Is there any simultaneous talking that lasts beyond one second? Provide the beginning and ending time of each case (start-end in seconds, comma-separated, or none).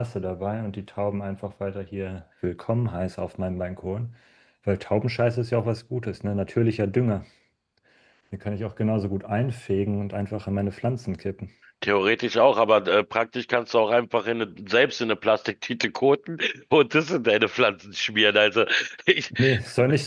none